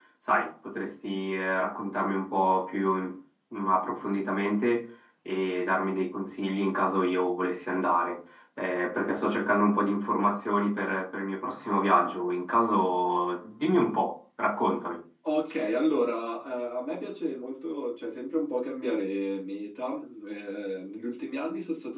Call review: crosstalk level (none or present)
none